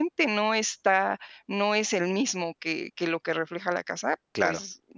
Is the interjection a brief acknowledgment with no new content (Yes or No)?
Yes